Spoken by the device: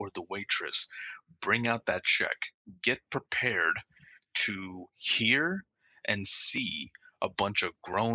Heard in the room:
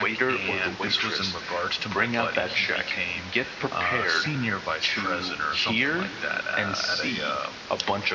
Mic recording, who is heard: both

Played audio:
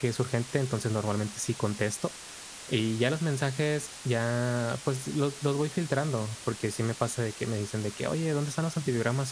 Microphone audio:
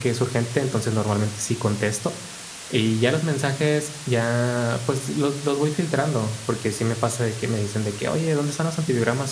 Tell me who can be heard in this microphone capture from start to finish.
echo only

